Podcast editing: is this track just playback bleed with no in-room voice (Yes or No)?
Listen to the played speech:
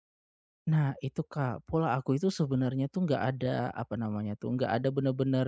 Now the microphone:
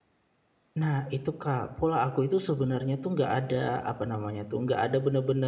Yes